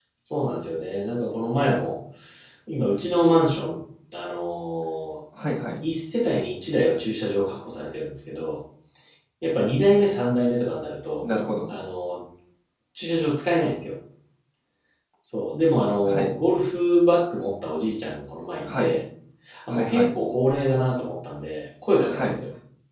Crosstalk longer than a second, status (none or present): none